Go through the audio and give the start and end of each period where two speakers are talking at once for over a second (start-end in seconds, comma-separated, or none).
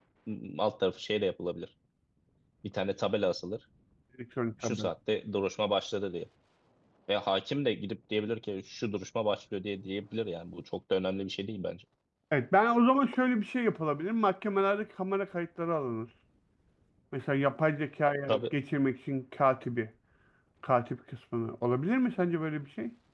none